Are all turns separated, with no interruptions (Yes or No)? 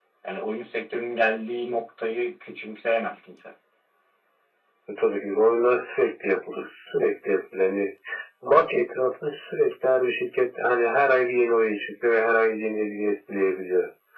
Yes